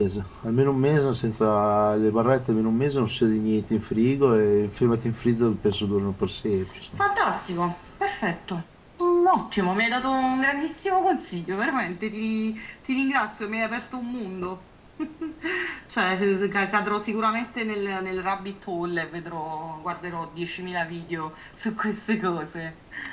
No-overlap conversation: Yes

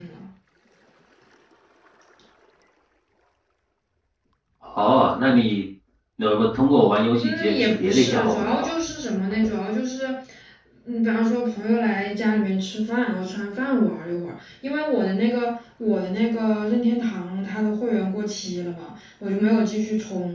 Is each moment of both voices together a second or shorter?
No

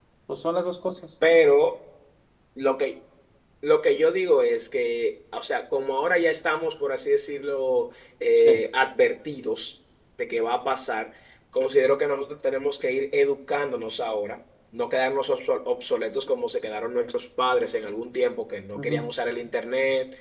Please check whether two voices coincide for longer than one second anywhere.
No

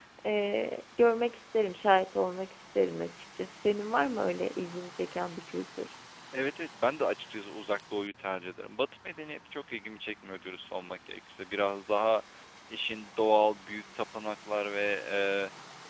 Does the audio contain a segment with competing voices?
No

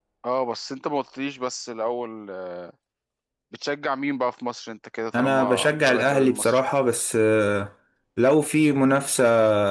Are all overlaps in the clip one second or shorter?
No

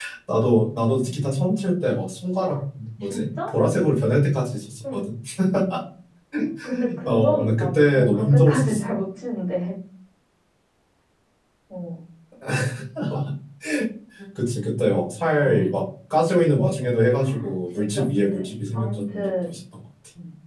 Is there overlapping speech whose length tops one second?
Yes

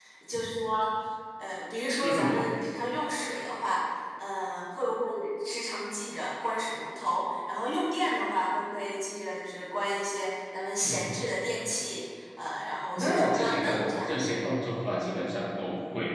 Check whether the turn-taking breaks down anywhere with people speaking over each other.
Yes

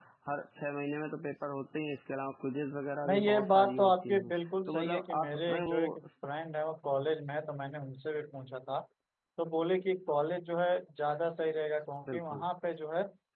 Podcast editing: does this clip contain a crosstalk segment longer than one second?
Yes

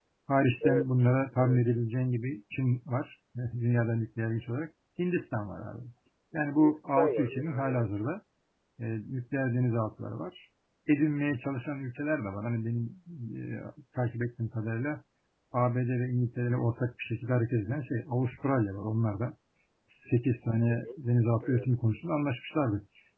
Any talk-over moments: Yes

